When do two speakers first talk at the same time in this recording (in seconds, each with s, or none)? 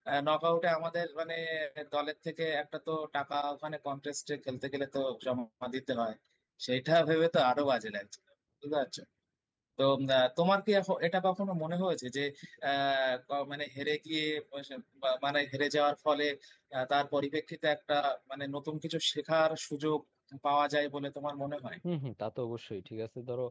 none